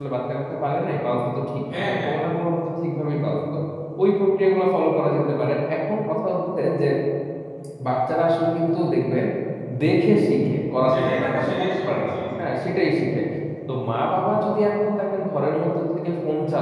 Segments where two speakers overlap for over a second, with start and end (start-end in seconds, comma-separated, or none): 10.9-12.6